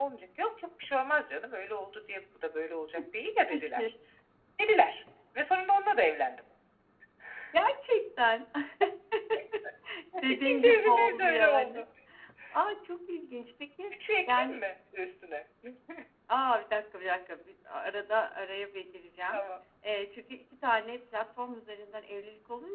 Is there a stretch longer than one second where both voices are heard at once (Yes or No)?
Yes